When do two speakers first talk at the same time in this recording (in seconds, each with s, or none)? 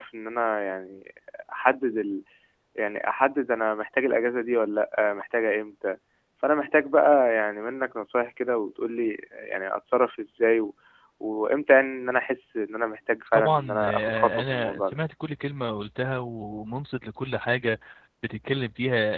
13.3 s